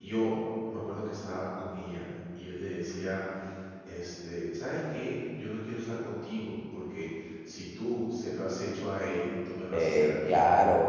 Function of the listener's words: taking over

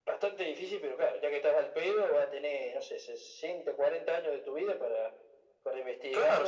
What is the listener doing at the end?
taking over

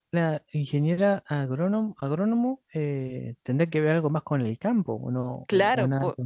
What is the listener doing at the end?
taking over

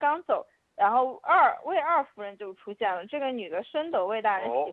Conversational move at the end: taking over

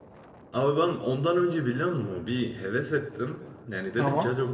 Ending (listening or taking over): listening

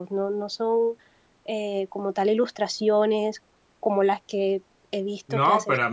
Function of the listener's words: taking over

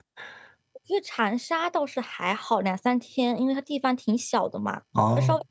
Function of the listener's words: listening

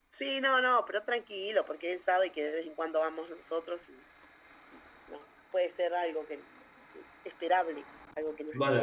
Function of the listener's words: taking over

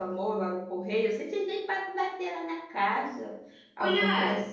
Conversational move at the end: taking over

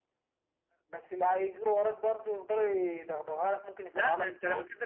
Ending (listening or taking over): taking over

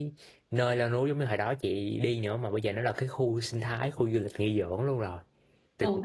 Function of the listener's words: taking over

